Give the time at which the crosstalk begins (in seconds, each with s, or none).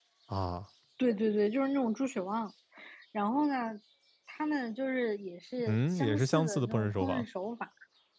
5.6 s